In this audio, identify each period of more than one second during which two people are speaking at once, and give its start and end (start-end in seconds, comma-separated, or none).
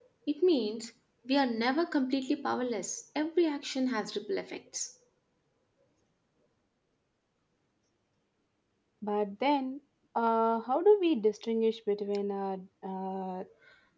none